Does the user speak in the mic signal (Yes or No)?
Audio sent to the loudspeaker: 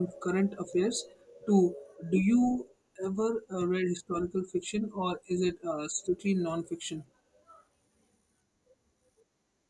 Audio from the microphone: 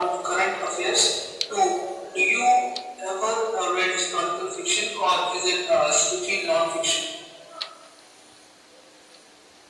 No